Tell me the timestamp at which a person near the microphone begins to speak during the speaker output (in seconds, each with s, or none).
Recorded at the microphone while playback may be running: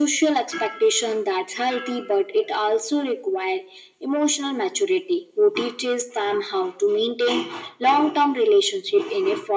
none